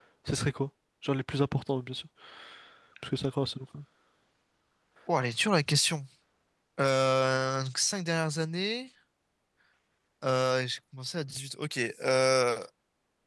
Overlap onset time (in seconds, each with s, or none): none